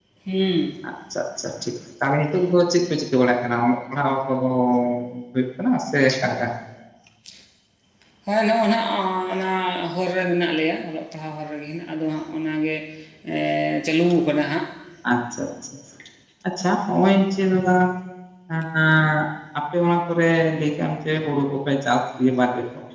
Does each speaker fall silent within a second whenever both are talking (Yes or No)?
Yes